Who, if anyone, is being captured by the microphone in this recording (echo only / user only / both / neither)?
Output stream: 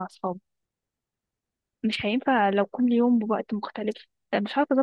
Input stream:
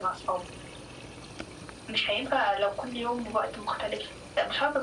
echo only